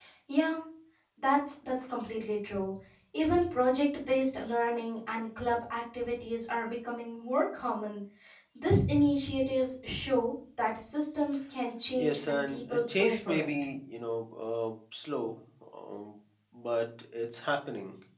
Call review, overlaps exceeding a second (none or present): present